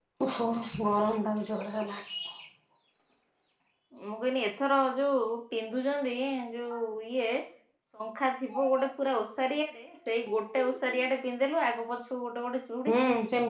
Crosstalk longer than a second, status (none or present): none